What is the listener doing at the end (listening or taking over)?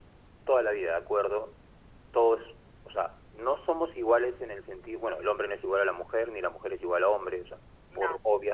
listening